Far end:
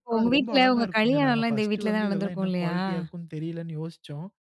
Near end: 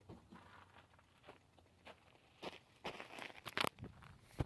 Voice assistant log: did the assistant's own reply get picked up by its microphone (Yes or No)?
No